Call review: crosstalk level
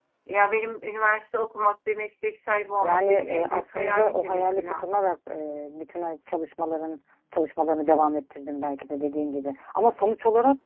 present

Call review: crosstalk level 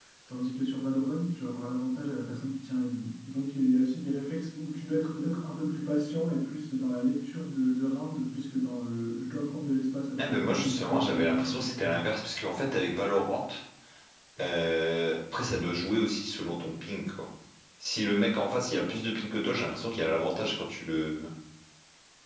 present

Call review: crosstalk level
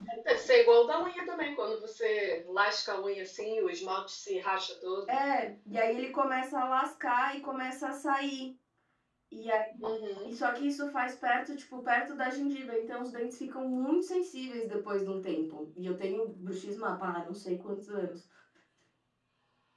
none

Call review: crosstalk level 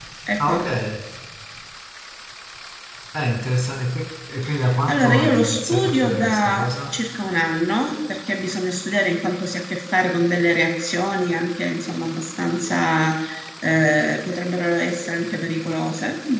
present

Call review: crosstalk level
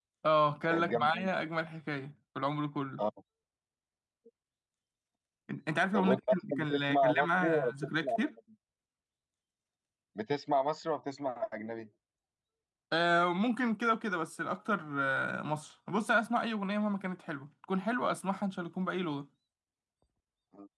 present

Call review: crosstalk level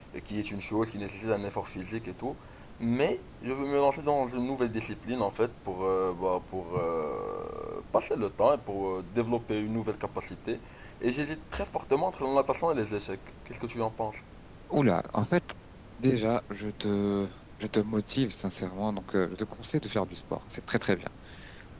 none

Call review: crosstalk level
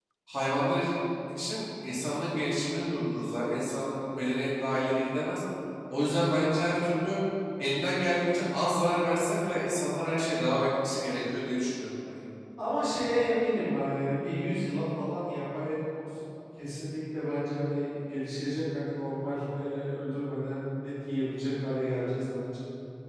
none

